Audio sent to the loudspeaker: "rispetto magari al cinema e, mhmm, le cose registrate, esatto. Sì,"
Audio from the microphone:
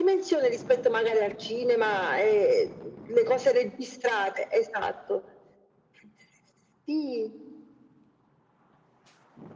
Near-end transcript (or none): none